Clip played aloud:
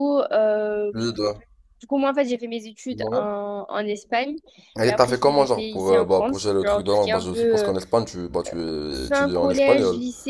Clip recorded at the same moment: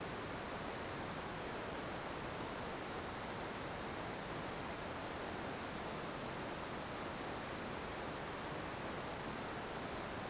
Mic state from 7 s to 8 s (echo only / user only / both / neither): neither